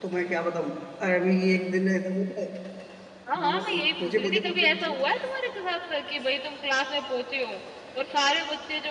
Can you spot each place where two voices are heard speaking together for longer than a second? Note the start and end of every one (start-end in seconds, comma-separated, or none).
3.4-5.0